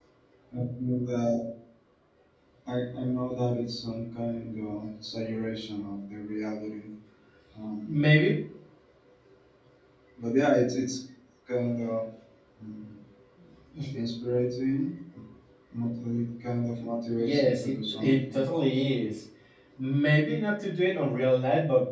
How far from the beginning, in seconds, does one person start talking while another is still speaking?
17.2 s

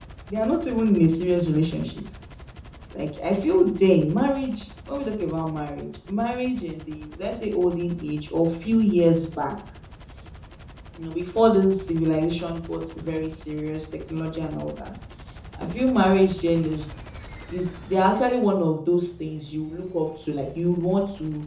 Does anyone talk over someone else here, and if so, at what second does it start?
none

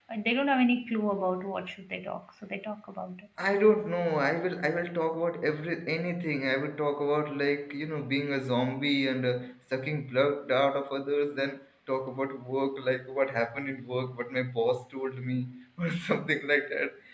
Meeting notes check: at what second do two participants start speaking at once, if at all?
none

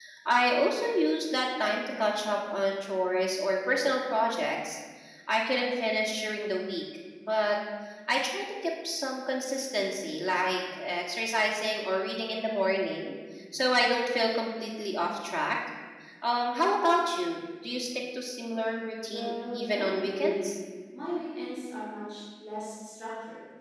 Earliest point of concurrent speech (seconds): 19.1 s

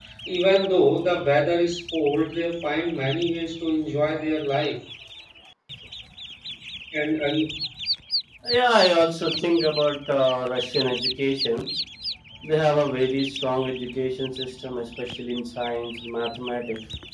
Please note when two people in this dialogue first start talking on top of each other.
none

